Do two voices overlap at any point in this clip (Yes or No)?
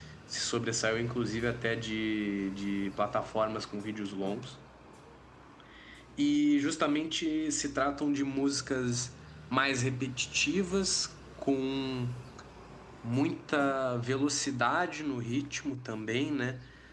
No